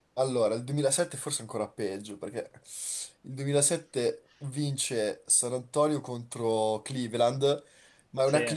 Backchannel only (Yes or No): Yes